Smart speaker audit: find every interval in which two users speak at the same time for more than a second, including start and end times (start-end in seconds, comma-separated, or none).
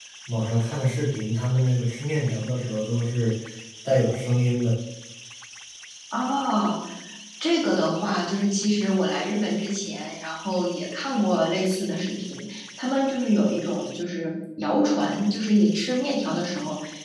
none